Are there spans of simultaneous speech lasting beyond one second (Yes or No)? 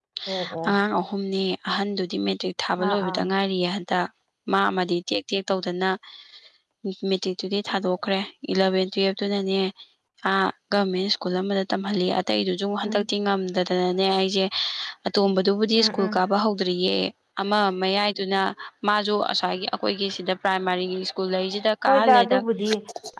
No